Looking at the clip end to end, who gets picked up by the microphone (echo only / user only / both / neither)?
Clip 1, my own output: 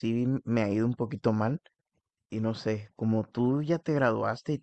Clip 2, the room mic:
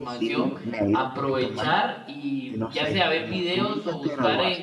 both